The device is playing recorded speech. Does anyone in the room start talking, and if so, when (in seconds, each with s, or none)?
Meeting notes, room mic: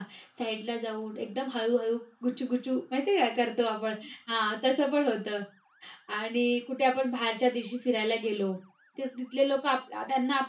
none